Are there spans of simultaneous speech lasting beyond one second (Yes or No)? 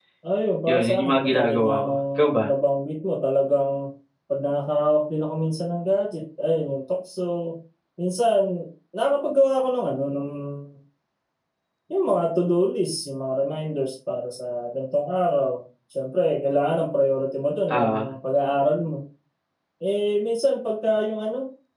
Yes